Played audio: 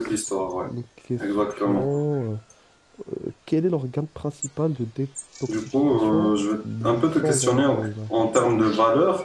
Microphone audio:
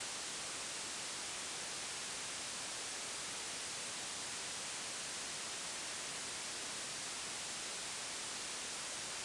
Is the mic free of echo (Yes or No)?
Yes